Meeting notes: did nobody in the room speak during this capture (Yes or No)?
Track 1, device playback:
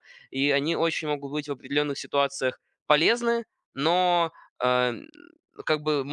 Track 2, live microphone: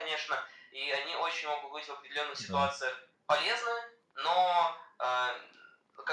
No